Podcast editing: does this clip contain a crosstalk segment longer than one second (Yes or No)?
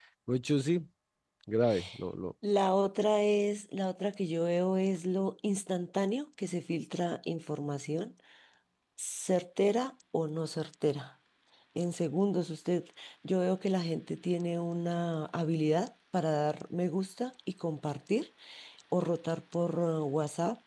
No